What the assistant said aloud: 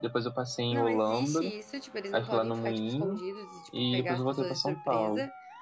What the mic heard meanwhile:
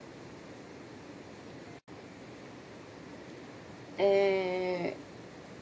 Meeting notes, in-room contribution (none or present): present